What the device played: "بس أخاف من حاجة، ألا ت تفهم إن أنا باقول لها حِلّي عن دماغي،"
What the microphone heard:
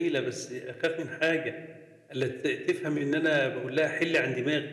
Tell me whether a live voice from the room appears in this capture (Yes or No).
No